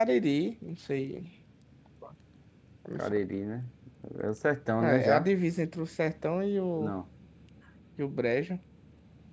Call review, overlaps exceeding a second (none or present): none